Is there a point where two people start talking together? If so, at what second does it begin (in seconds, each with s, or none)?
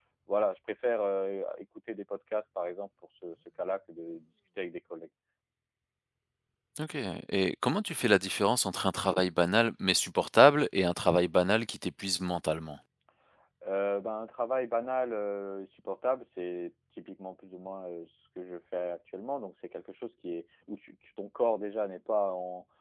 none